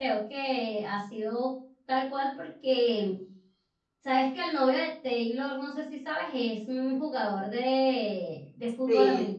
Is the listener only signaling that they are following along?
Yes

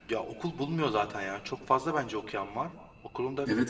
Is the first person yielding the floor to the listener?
Yes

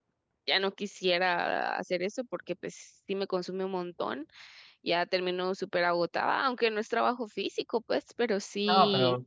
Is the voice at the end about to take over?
Yes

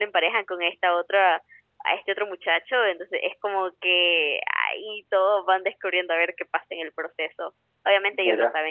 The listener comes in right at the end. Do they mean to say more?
No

